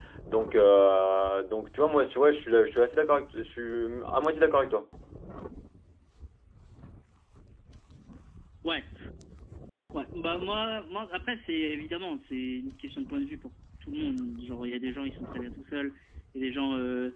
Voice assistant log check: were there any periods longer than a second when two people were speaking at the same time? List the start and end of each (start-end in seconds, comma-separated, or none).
none